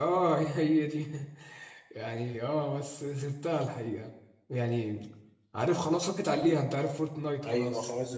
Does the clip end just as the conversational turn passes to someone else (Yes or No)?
Yes